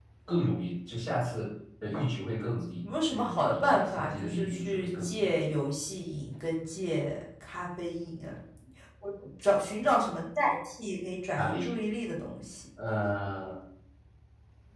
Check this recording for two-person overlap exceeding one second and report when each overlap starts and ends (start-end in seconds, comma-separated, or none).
2.8-5.3